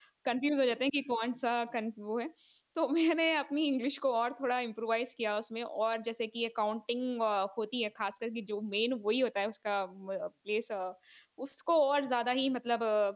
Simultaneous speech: No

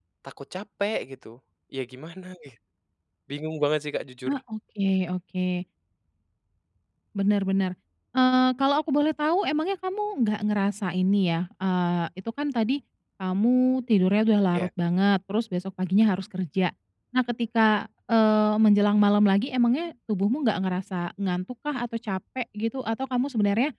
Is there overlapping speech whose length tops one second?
No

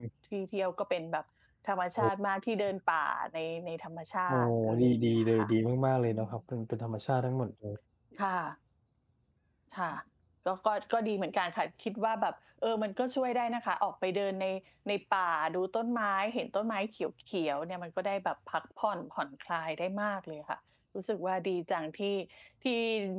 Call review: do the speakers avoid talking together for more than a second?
No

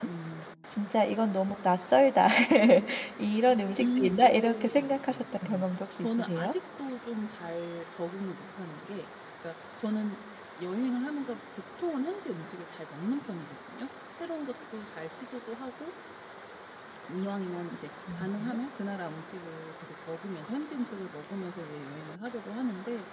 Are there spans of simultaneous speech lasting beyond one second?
Yes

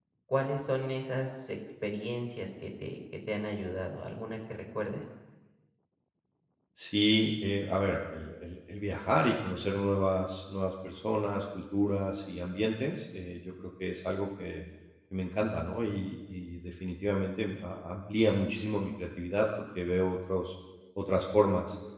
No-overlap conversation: Yes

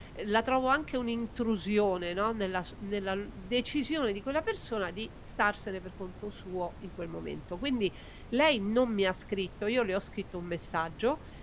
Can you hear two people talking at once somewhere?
No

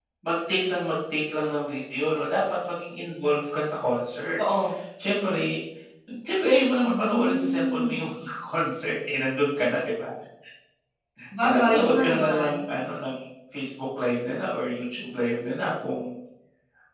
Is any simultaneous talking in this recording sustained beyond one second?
Yes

